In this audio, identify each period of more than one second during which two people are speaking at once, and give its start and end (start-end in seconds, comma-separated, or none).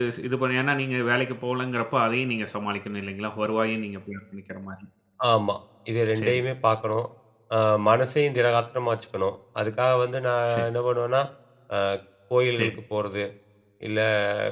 none